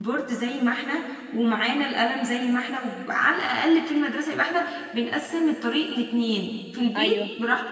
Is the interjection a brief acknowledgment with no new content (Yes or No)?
Yes